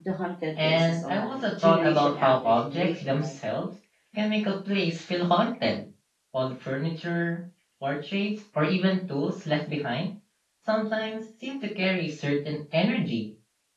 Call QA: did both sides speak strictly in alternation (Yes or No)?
No